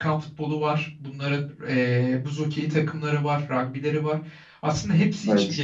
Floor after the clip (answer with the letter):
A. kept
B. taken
A